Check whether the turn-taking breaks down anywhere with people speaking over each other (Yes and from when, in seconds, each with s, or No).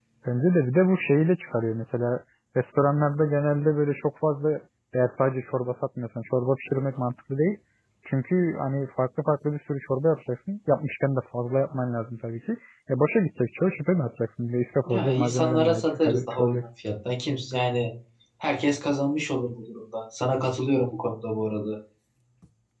Yes, from 14.9 s